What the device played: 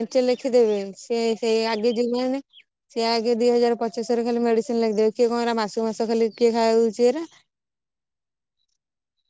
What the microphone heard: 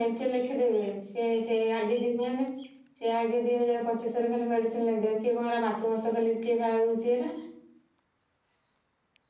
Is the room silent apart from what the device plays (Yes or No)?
Yes